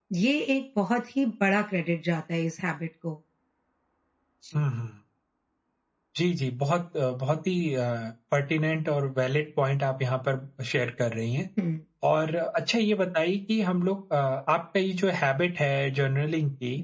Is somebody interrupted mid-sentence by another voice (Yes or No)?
No